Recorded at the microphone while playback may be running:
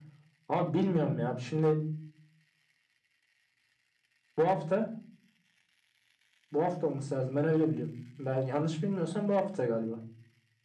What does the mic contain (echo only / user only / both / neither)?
echo only